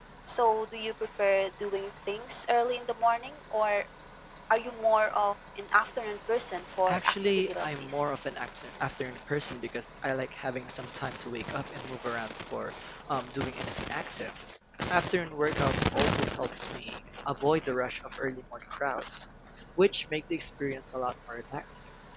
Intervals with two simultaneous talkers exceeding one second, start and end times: 6.9-8.1

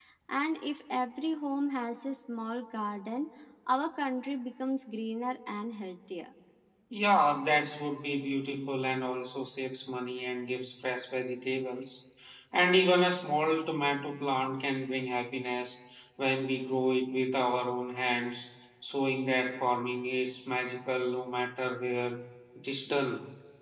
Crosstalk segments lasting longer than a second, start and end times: none

